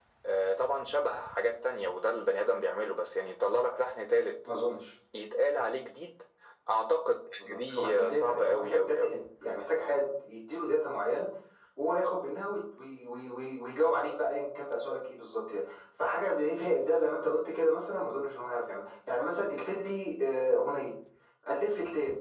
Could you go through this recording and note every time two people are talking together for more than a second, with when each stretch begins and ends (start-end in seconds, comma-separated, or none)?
7.5-9.1